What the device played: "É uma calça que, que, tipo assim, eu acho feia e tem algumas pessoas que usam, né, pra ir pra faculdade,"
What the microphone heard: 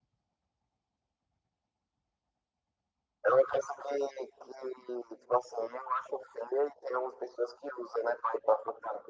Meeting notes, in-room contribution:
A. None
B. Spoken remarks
A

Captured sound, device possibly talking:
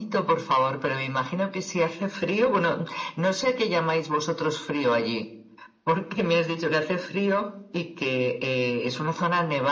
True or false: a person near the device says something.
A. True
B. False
B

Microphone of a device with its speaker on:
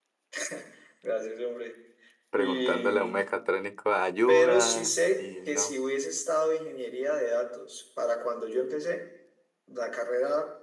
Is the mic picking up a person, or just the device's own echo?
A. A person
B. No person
A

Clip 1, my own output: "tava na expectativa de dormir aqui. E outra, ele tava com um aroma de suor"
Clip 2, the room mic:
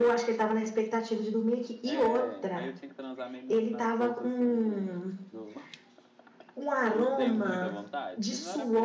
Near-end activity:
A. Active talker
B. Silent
A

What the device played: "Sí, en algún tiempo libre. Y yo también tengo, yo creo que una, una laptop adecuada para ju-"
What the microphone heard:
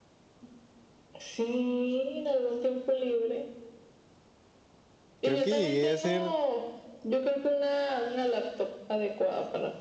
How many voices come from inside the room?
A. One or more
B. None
A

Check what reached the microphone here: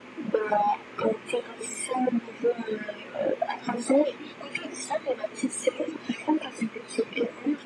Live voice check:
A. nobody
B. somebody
A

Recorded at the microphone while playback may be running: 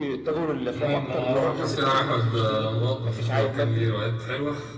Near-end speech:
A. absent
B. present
B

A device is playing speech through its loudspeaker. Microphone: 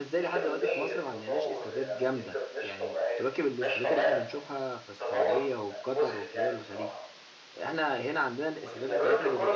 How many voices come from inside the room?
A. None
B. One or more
B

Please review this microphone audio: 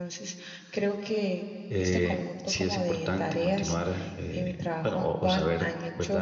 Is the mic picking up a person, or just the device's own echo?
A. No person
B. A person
B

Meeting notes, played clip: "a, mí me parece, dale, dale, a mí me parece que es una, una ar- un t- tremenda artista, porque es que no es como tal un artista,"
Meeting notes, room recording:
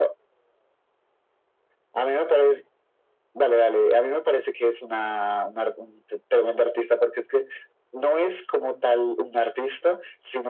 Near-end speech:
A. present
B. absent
B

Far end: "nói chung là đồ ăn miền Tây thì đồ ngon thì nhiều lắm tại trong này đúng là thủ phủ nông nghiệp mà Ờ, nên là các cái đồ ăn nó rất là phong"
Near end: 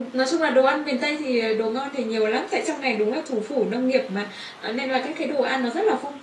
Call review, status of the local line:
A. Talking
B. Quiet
B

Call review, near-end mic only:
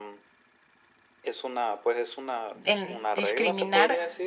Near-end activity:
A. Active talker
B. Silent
A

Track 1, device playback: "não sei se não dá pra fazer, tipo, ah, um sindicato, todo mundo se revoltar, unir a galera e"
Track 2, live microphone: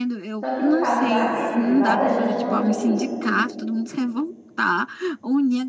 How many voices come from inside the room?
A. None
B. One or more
B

